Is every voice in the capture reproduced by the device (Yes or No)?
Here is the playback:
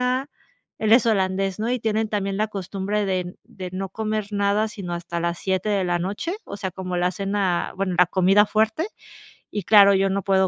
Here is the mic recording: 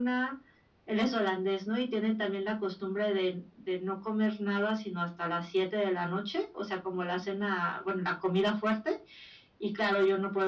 Yes